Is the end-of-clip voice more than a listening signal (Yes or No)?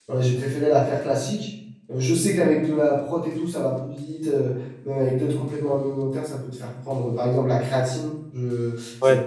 No